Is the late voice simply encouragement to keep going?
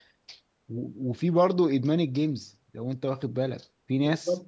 Yes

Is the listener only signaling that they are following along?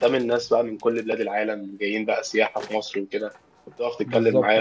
Yes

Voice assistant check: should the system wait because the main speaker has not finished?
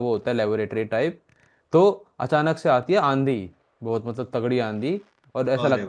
Yes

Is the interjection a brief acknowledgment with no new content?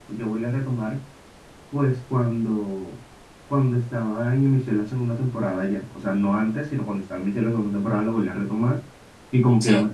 Yes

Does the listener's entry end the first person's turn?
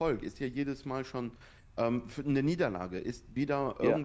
No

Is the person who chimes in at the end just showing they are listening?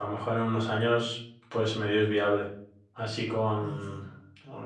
Yes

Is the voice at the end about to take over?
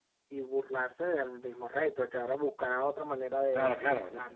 Yes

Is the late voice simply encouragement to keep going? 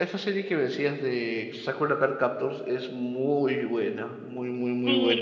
No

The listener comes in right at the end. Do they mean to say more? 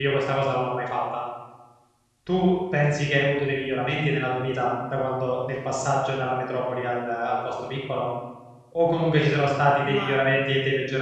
No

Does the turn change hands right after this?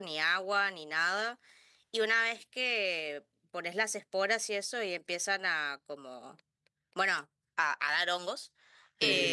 No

